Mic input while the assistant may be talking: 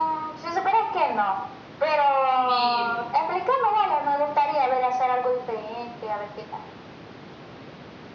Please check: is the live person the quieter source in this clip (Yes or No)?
Yes